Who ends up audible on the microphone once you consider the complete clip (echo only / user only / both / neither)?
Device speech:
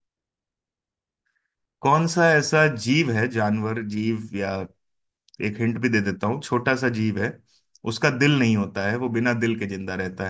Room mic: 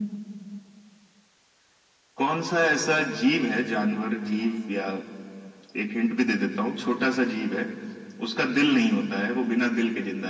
echo only